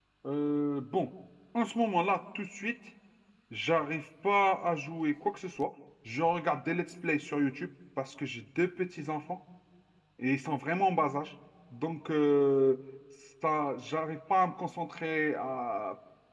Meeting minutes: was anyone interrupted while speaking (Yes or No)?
No